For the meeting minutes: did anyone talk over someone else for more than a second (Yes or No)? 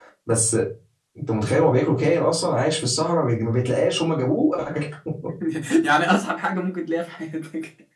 No